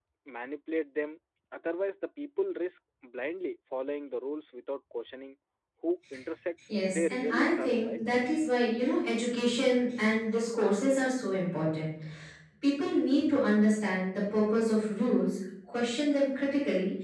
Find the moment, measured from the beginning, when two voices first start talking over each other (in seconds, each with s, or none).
6.7 s